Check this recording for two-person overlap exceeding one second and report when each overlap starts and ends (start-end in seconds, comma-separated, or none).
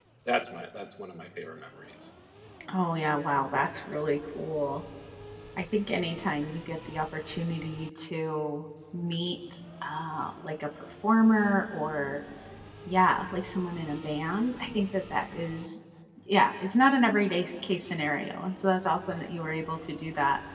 none